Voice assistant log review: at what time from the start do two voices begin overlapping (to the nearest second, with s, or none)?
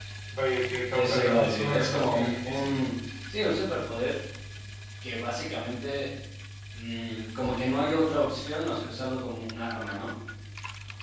1 s